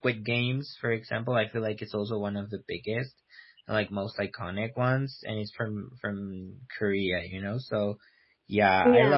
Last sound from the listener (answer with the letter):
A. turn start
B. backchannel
B